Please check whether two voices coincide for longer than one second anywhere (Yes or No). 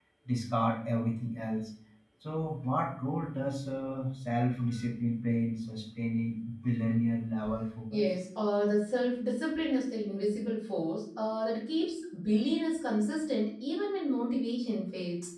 No